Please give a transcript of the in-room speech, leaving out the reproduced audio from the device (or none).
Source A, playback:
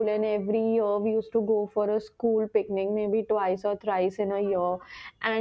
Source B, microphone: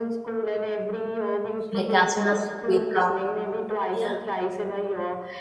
like as soon as you wake up yeah